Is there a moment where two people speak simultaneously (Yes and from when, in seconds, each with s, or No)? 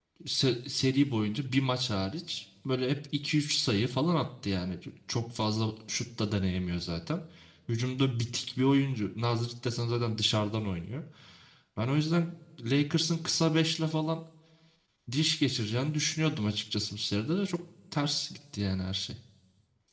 No